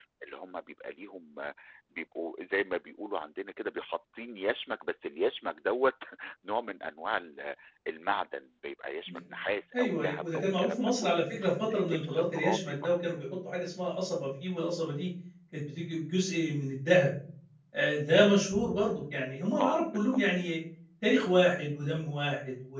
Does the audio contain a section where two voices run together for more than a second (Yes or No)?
Yes